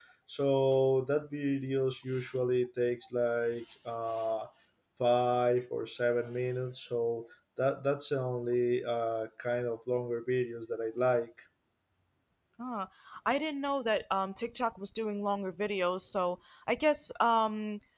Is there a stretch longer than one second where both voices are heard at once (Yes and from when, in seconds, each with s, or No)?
No